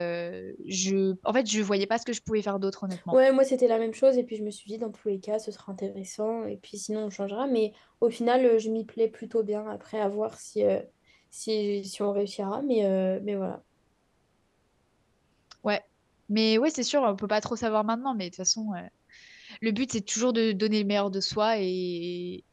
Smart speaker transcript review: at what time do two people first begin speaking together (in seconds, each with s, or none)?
none